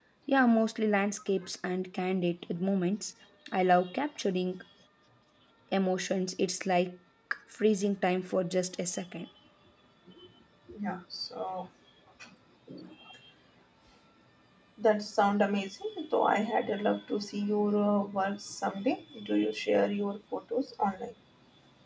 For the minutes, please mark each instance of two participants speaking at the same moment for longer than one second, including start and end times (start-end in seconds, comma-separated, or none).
none